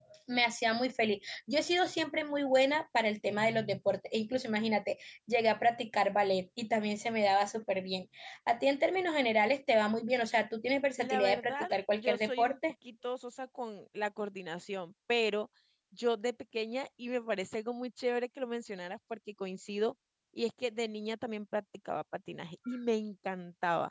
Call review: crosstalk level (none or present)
present